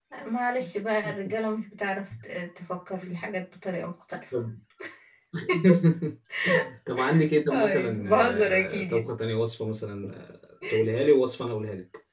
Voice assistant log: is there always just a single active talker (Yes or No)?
No